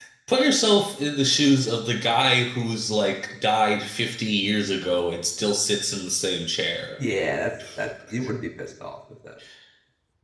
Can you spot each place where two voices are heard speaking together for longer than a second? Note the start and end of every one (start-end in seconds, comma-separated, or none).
none